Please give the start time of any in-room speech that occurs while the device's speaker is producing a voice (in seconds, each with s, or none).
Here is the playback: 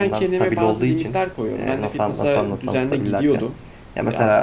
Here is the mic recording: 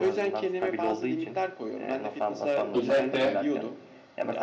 2.7 s